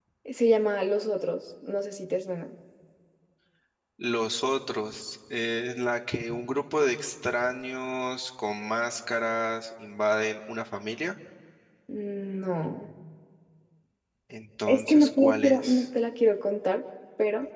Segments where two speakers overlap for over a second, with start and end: 14.7-15.9

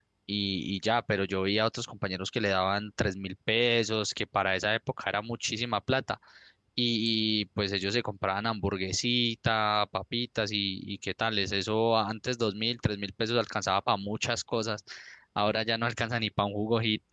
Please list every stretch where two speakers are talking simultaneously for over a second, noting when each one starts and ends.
none

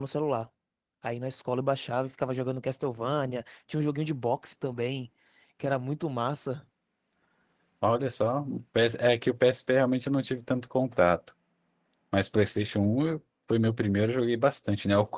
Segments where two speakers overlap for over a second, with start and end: none

